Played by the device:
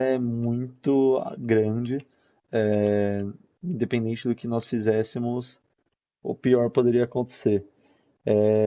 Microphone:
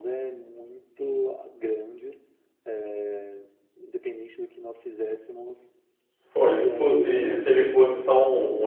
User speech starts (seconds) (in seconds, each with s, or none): 6.3 s